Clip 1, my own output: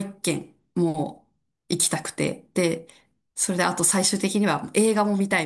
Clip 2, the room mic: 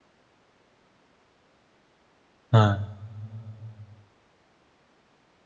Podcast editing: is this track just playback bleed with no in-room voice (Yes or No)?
No